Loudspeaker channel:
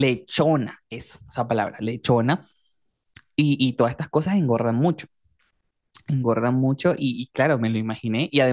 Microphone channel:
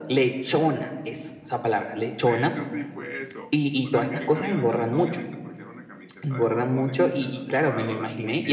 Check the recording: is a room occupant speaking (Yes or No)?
Yes